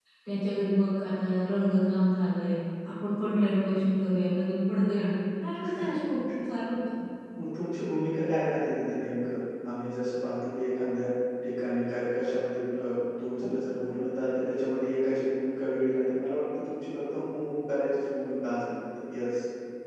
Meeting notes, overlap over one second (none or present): none